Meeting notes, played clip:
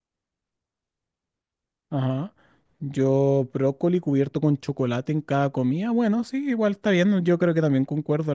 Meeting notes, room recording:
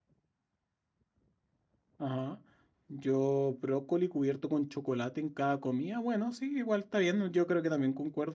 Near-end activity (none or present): none